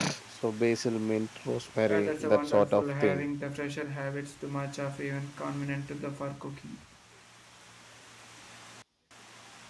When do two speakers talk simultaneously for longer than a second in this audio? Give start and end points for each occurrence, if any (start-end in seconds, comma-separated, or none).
1.9-3.2